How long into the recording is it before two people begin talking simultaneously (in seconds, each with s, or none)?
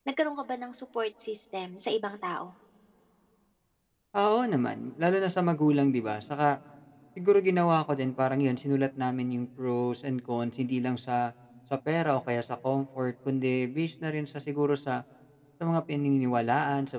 none